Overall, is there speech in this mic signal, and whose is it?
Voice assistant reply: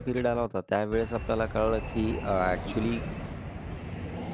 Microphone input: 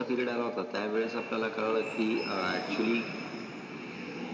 echo only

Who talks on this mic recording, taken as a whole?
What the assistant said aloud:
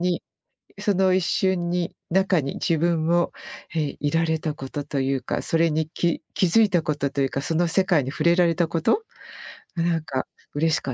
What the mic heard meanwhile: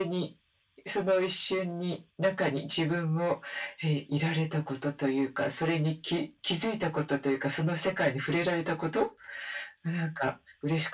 echo only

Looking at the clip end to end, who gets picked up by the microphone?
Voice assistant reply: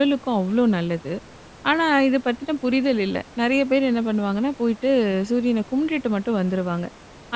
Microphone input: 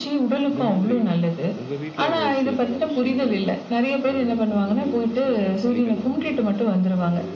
both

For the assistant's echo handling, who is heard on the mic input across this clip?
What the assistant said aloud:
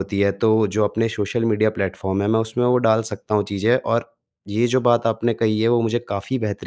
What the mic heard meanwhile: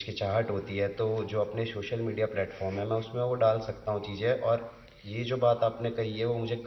echo only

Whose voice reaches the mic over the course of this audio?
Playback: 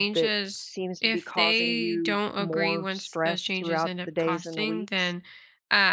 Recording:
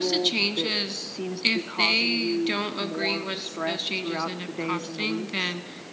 echo only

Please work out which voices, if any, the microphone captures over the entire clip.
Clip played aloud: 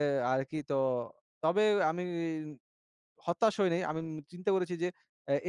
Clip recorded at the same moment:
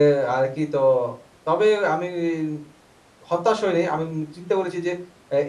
echo only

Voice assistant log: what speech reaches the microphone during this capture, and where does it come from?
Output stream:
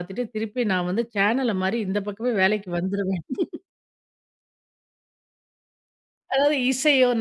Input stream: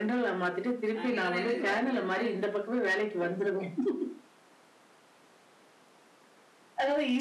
both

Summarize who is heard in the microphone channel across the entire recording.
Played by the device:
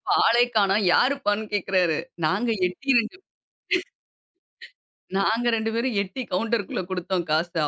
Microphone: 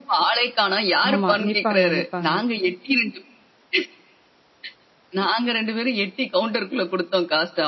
both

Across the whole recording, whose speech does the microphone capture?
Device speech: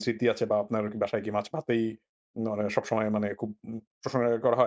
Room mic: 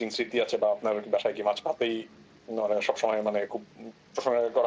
echo only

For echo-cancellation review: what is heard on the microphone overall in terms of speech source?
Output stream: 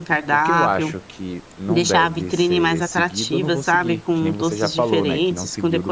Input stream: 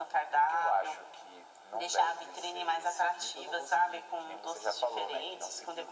echo only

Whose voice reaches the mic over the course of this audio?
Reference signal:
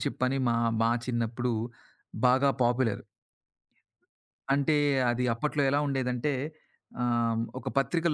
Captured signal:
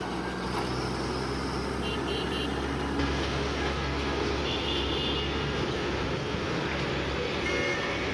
neither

